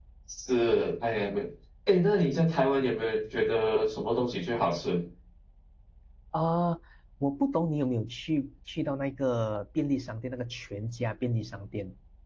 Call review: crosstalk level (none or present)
none